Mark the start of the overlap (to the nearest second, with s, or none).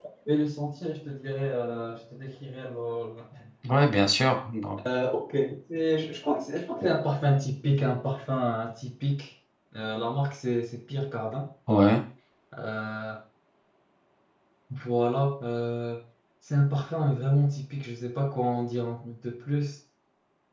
none